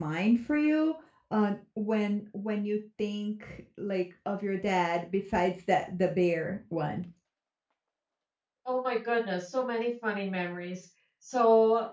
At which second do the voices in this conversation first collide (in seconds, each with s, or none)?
none